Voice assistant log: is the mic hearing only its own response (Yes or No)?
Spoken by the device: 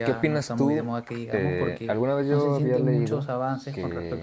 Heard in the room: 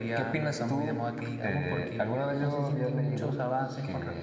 Yes